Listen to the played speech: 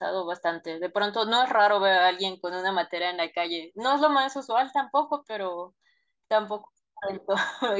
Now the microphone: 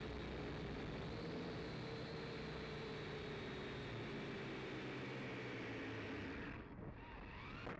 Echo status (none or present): none